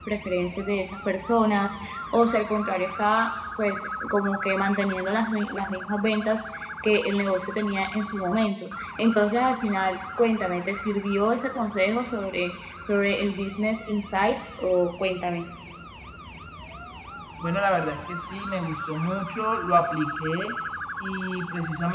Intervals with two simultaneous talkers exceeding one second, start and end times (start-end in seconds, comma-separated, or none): none